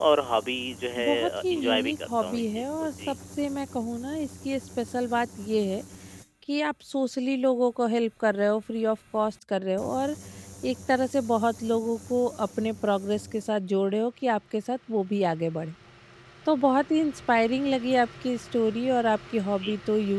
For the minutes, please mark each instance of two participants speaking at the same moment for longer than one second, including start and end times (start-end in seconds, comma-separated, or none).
1.0-3.1